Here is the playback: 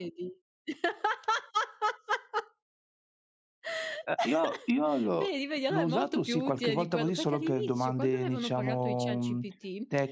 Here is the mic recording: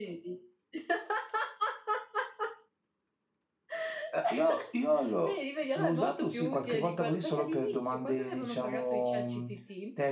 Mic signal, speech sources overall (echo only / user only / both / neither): echo only